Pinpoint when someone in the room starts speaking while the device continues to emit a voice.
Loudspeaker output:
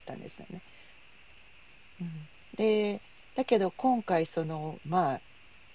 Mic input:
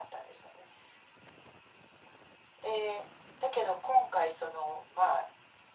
none

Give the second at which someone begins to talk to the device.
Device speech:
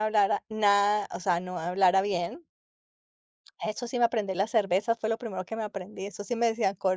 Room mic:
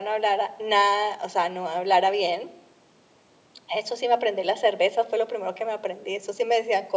none

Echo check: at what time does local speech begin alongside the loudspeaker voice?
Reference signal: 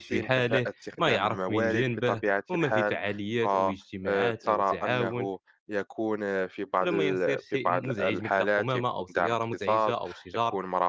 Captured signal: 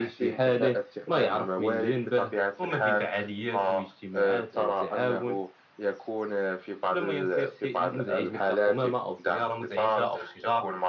none

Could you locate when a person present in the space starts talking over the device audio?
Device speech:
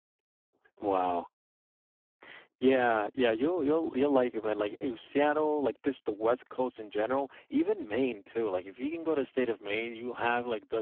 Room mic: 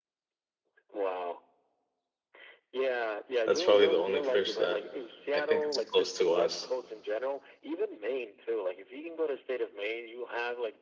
3.5 s

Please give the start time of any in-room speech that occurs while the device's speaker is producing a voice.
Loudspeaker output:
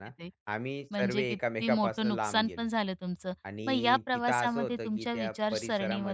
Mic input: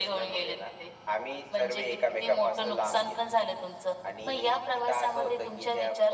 none

